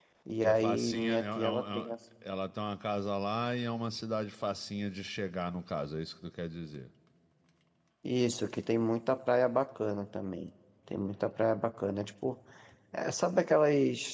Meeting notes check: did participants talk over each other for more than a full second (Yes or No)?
Yes